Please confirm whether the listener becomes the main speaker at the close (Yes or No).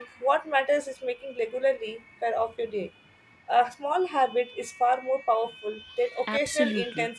Yes